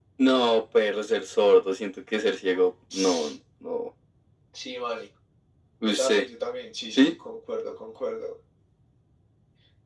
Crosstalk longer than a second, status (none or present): none